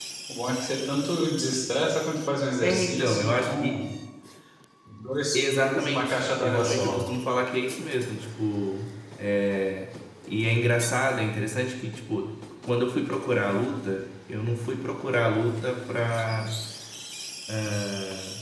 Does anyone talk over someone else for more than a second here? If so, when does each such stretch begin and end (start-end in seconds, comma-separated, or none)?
2.6-3.8, 5.3-7.0